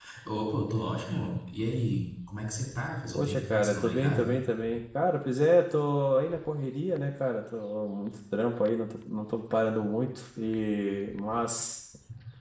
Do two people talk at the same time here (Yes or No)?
Yes